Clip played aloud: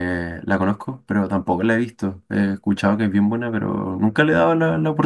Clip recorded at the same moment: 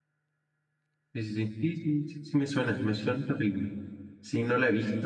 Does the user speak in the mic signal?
Yes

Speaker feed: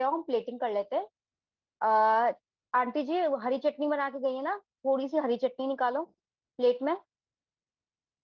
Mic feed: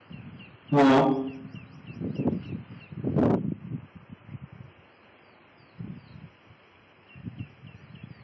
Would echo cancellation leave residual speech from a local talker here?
Yes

